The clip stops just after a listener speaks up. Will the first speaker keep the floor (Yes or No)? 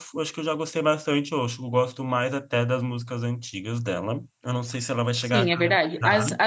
No